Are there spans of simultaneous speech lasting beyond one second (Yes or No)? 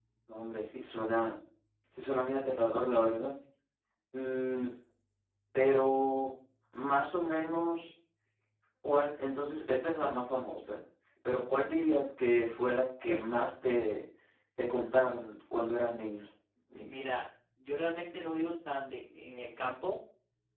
No